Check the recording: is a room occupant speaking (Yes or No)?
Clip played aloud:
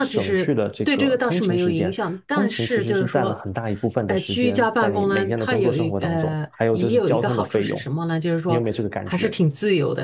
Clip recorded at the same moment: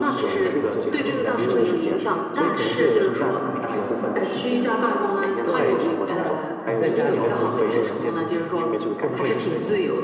Yes